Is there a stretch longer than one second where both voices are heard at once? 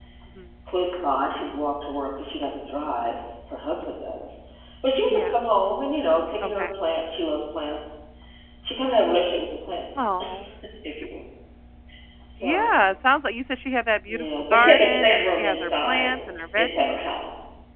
Yes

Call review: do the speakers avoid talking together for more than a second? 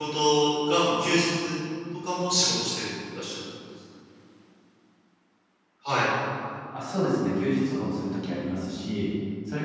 Yes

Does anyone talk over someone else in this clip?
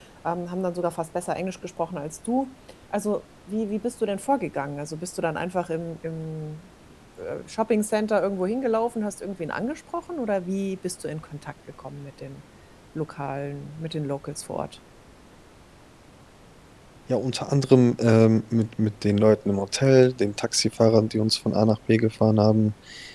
No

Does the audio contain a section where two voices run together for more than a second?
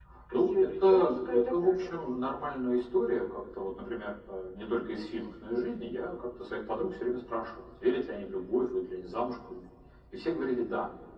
Yes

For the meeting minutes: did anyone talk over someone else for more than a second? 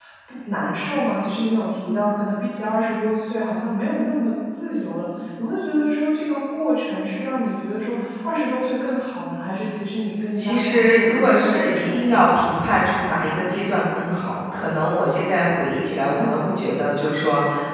Yes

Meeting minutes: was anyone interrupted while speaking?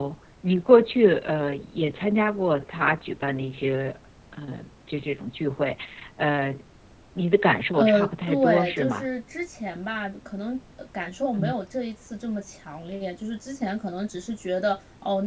Yes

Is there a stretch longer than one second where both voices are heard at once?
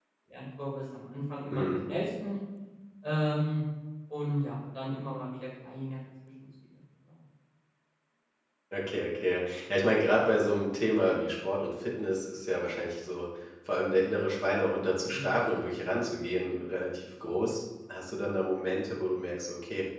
No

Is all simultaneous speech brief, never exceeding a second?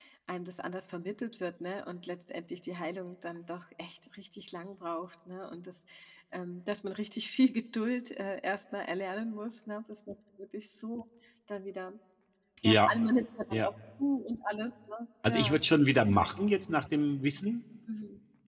Yes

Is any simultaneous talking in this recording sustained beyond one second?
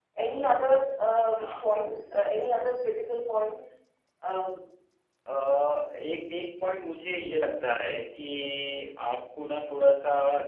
No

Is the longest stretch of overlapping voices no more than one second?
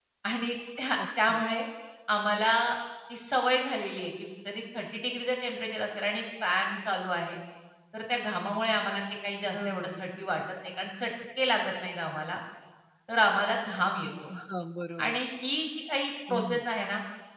Yes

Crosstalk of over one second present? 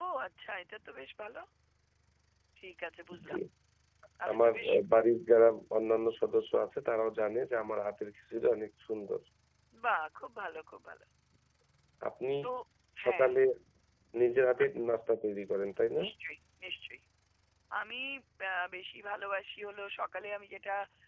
No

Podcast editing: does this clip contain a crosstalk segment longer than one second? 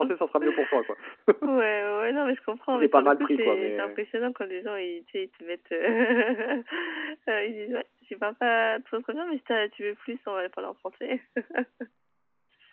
Yes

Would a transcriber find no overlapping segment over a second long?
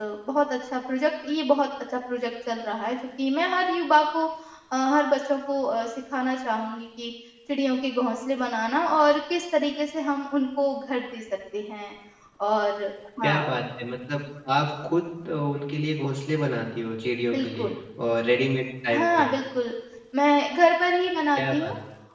Yes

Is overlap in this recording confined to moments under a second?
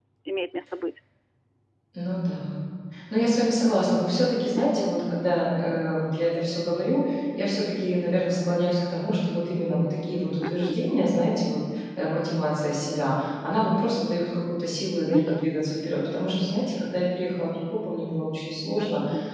Yes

